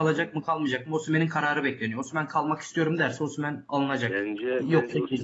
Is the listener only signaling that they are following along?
No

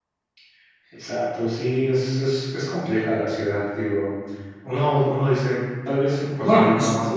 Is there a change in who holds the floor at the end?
No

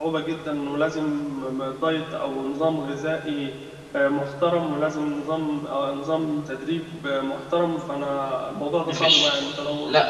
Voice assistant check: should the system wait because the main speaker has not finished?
No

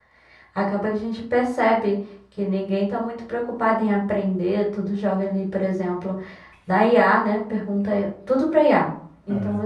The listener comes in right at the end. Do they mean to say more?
No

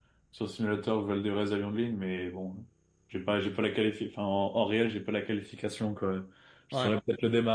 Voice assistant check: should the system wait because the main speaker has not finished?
Yes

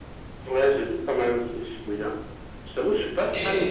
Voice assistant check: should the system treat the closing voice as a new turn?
No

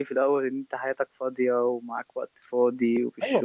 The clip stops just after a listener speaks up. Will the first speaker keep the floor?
No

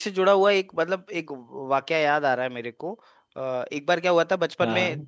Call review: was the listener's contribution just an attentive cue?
Yes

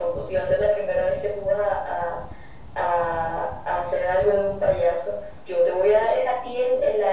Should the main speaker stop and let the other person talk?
No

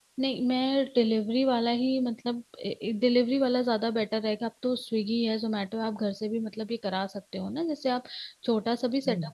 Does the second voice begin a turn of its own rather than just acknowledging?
No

